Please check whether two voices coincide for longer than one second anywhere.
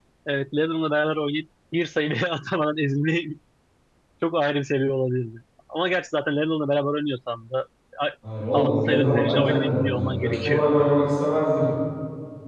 Yes, from 8.6 s

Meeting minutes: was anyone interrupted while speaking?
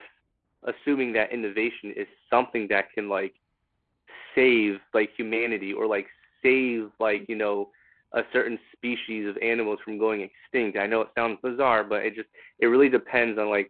No

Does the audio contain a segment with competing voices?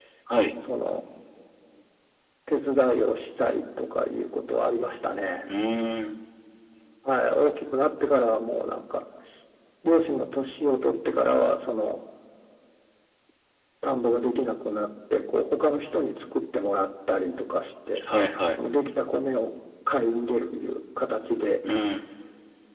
No

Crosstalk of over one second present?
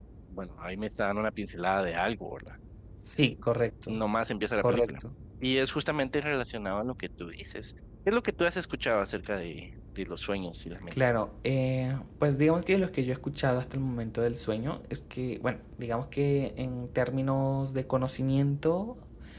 No

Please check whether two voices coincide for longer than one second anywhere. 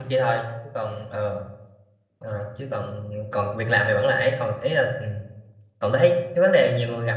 No

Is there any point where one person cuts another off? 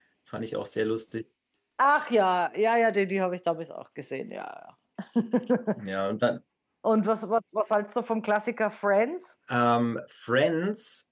No

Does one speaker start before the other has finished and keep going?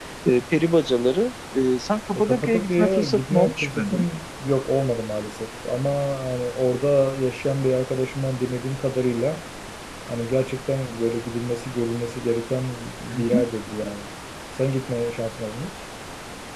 Yes, from 2.1 s

